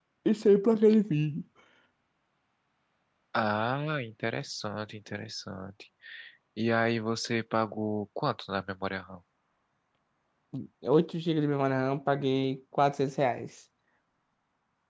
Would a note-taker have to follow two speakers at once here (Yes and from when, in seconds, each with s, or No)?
No